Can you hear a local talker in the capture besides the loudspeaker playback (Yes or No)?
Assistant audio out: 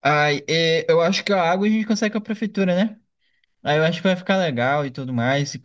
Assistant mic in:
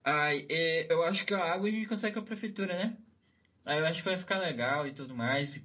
No